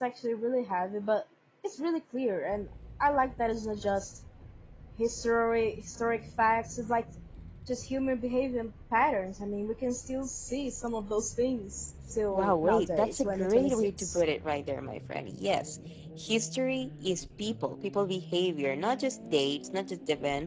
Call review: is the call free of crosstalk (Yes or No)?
No